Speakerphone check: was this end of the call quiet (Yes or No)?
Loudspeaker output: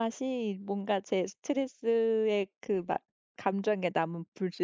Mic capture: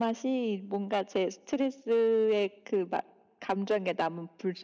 Yes